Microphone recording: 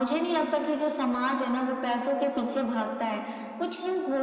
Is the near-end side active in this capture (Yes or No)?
No